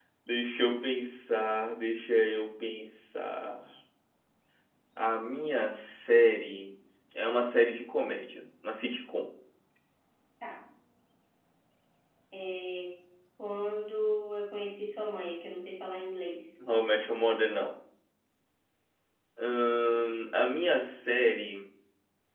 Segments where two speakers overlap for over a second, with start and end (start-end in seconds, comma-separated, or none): none